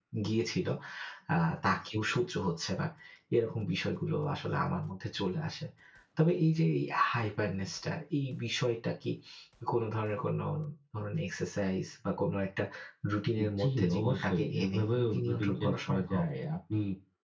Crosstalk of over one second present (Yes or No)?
Yes